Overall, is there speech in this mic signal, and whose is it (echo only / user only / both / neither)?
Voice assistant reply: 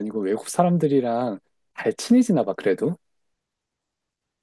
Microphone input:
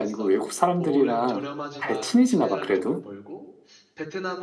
both